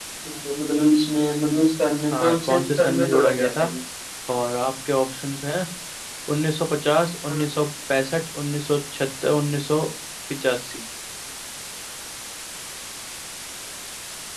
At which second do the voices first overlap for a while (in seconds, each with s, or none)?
2.1 s